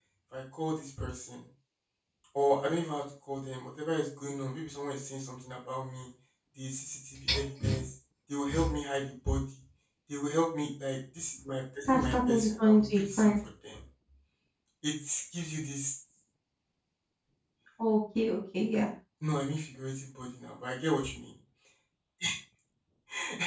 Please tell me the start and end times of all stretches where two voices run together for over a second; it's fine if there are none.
11.9-13.3

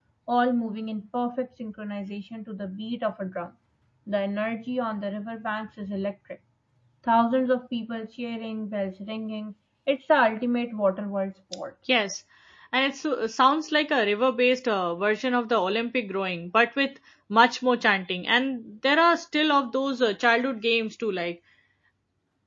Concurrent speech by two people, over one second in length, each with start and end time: none

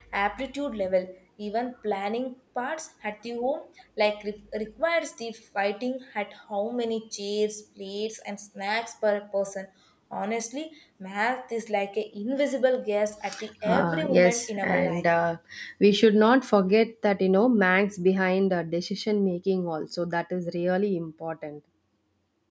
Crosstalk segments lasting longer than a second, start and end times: 13.6-15.1

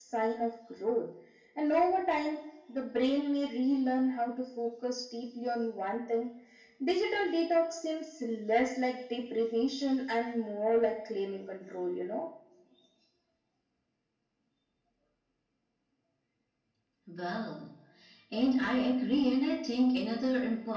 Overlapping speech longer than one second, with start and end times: none

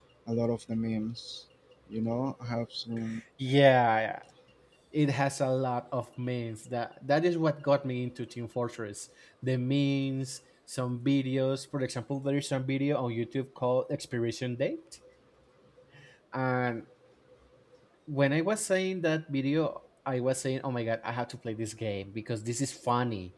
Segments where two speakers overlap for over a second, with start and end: none

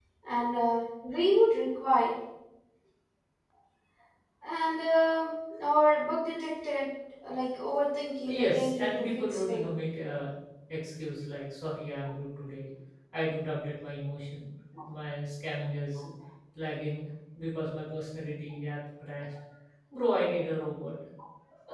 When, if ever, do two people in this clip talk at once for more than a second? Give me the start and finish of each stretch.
8.3-9.7

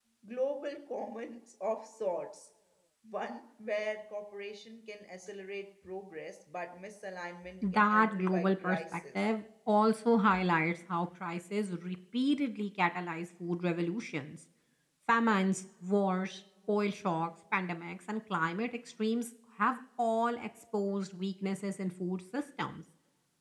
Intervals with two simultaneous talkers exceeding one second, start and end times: 7.7-9.3

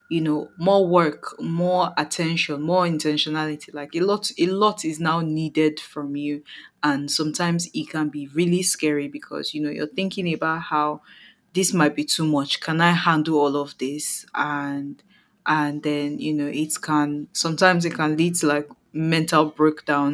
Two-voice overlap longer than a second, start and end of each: none

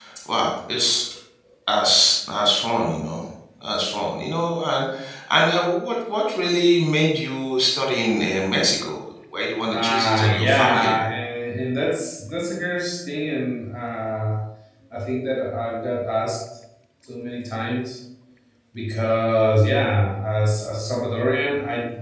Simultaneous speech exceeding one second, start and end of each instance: 9.7-11.0

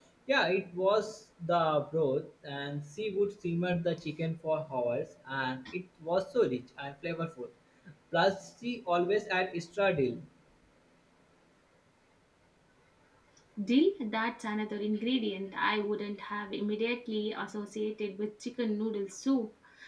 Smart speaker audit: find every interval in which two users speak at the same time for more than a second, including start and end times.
none

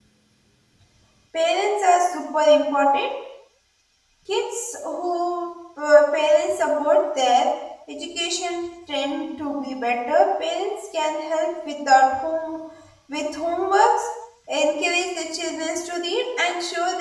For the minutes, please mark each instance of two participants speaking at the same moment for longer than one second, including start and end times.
none

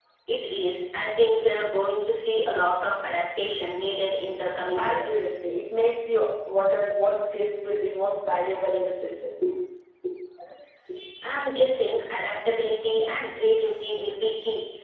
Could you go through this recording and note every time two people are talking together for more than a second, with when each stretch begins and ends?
none

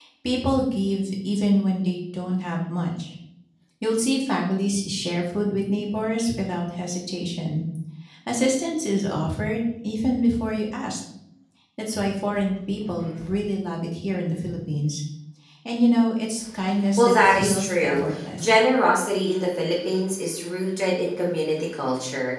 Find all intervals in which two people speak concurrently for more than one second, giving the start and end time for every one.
17.0-18.5

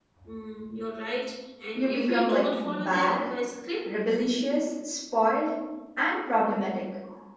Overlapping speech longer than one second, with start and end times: 1.8-3.3

